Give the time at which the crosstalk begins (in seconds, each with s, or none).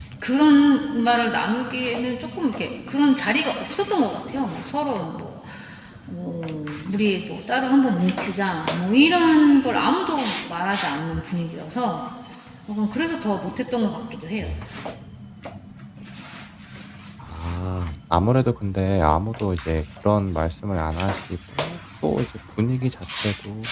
none